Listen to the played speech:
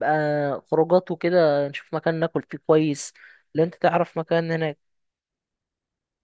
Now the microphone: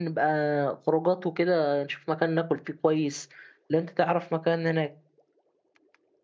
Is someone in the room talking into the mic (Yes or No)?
No